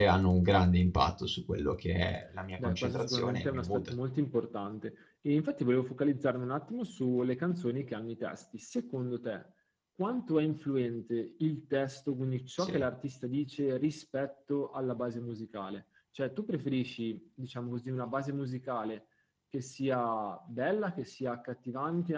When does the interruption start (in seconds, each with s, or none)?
2.6 s